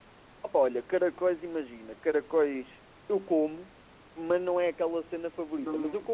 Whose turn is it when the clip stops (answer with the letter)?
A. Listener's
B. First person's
B